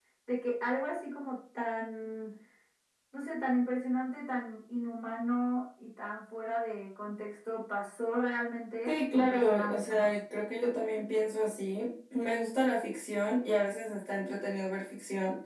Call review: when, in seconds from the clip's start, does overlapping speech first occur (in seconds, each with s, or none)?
8.9 s